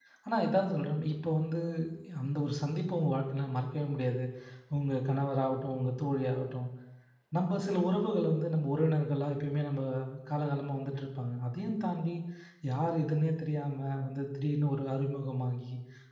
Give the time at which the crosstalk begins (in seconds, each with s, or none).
none